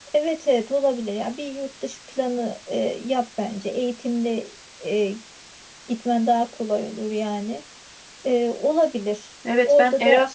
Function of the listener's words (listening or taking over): taking over